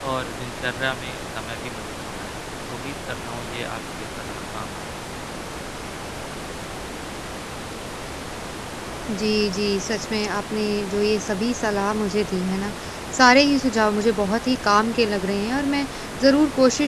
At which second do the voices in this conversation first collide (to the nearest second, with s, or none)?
none